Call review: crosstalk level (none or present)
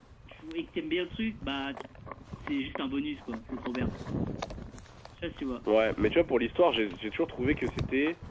none